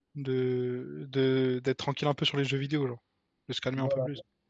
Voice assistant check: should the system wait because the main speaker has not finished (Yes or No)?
No